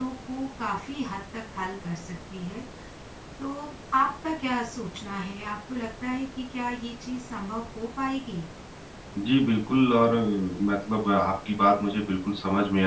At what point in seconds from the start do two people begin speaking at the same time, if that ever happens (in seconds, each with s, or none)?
none